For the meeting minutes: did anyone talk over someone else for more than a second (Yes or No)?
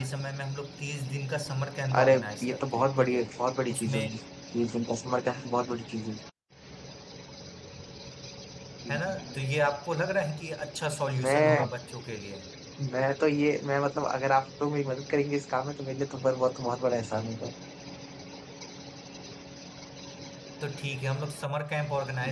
Yes